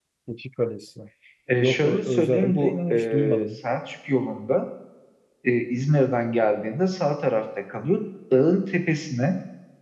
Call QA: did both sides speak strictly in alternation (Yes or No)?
No